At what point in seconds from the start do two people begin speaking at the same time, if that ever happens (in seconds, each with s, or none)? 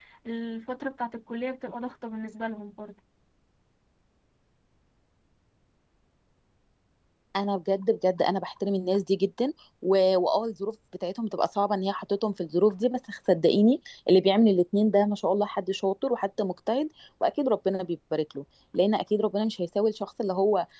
none